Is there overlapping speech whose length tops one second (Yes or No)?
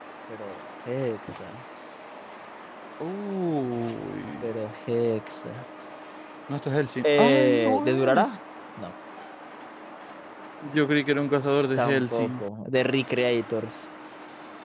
Yes